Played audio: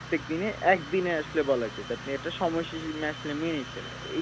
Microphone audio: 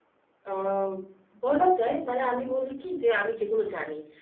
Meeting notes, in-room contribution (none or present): present